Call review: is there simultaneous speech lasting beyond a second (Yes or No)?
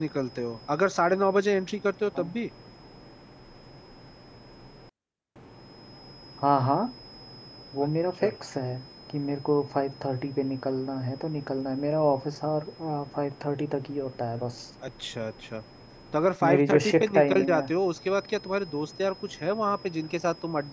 Yes